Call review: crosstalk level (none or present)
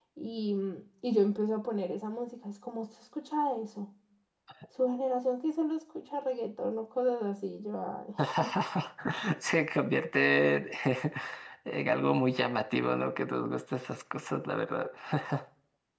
none